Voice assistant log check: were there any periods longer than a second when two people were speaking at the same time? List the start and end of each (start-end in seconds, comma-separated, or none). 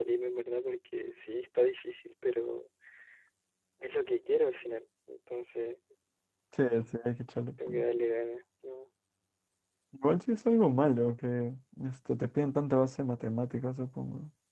none